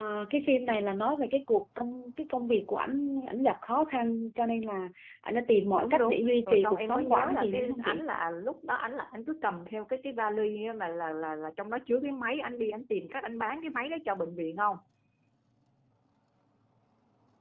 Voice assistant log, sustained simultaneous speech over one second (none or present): present